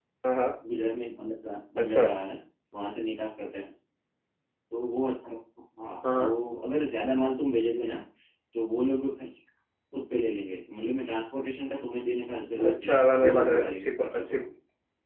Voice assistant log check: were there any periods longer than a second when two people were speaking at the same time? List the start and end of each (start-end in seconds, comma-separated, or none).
12.6-14.4